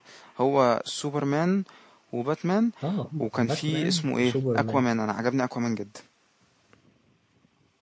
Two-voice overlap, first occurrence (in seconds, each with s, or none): 3.2 s